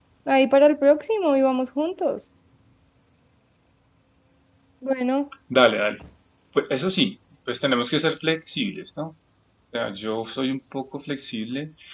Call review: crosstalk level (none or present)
none